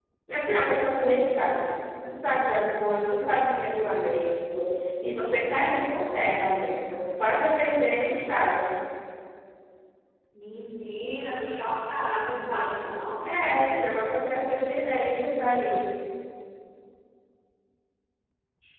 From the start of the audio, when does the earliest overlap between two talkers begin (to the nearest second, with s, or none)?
none